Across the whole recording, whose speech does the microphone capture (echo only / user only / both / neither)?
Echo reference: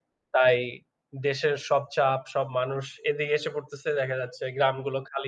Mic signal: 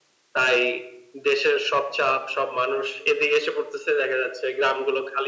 echo only